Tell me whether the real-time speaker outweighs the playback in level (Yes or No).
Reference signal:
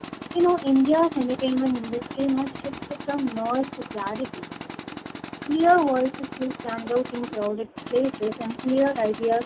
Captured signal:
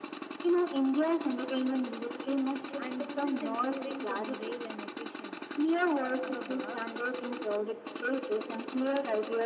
No